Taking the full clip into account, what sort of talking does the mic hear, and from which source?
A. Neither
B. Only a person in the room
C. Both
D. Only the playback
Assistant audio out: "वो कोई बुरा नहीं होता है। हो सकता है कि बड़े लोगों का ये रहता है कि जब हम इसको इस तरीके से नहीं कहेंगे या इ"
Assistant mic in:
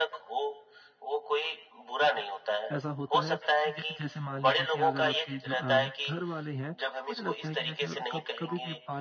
C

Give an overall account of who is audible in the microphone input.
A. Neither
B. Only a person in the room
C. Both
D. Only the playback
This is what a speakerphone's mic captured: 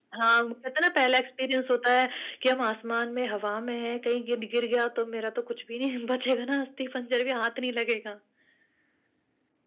D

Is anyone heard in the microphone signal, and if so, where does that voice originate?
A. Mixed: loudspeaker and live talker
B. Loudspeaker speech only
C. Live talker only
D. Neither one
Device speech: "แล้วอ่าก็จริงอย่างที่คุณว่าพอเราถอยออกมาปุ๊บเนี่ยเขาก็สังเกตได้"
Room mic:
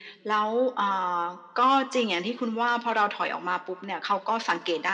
B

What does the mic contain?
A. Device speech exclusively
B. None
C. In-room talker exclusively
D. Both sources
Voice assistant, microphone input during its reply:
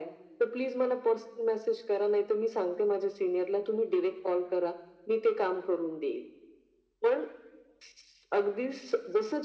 A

